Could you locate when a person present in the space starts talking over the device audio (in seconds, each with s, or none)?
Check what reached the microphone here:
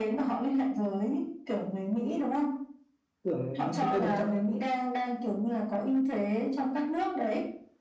3.2 s